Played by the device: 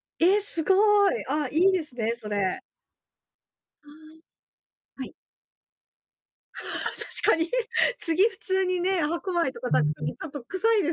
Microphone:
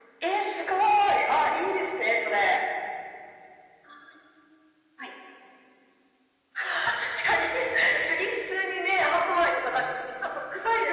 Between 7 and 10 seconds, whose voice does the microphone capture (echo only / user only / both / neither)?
echo only